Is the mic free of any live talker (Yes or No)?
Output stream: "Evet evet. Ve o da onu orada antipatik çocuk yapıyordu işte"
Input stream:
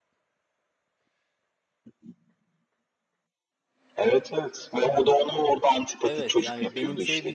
No